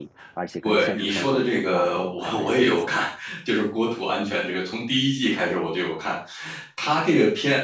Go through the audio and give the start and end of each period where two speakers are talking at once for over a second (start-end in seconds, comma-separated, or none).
0.6-3.0